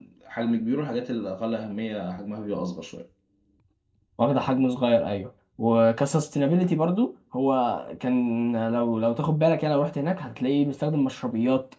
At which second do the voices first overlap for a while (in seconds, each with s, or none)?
none